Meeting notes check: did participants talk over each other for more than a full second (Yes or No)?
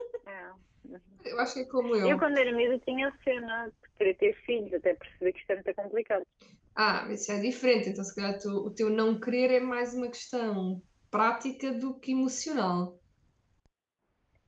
No